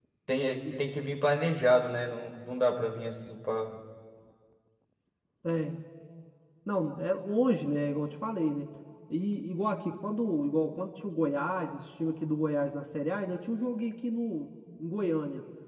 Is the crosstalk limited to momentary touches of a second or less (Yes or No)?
Yes